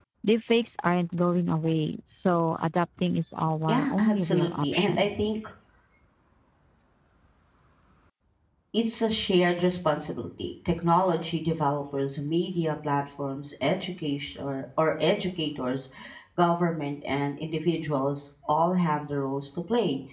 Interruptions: present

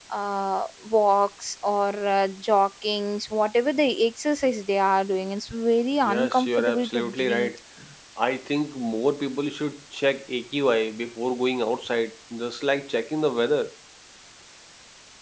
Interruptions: present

